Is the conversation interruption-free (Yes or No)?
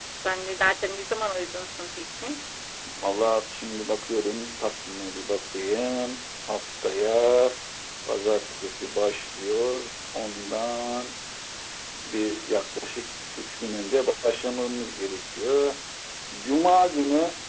Yes